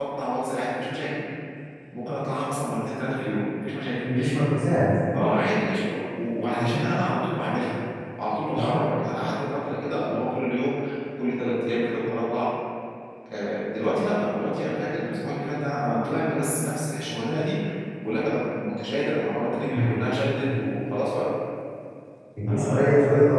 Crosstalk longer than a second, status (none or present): none